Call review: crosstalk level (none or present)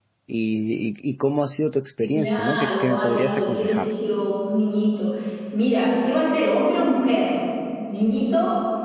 present